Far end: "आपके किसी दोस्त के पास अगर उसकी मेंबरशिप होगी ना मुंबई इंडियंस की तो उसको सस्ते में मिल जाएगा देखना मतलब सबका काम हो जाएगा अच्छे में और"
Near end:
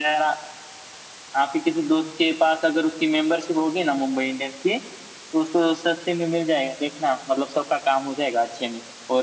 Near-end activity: none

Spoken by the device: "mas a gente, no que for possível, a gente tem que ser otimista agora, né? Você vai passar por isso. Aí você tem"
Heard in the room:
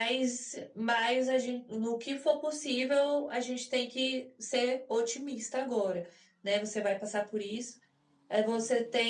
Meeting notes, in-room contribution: none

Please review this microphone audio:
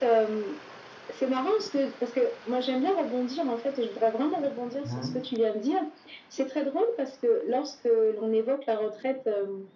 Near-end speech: present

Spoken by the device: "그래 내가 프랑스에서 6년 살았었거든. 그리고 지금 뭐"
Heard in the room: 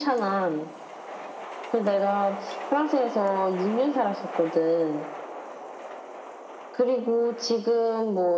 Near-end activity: none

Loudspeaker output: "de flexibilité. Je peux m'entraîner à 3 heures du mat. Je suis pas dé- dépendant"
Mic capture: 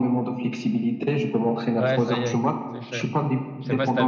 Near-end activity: present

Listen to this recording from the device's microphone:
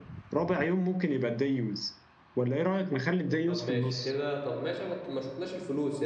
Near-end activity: present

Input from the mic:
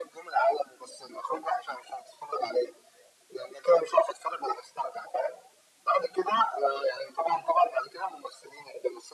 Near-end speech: none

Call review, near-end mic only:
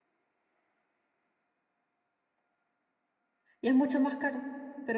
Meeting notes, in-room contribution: present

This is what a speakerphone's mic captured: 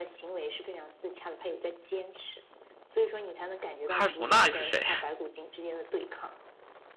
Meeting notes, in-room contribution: present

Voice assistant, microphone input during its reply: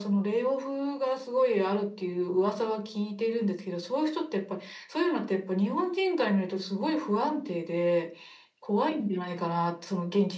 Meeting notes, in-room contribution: none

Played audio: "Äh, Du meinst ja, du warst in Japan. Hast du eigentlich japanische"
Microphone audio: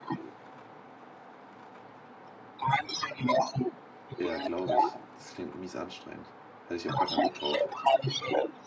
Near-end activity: present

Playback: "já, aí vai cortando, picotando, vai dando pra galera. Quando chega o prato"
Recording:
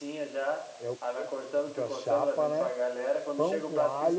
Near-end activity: present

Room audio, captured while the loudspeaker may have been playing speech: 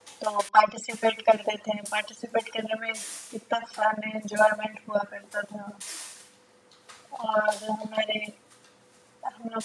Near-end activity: none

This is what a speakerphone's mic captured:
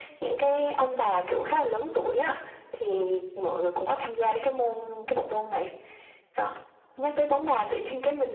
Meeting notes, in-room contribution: none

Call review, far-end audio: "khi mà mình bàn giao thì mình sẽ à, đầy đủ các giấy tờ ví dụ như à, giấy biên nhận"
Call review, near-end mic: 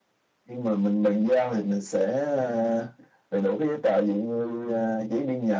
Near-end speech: none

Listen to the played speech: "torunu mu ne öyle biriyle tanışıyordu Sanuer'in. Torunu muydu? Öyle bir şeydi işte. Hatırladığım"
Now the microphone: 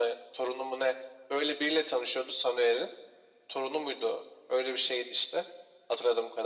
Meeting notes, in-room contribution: none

